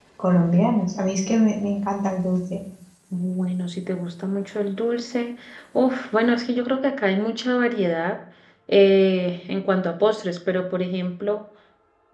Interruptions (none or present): none